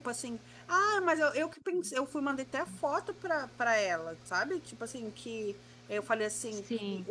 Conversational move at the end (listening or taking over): listening